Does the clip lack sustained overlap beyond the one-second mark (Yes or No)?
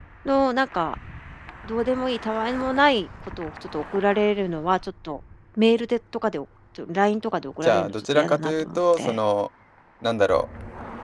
No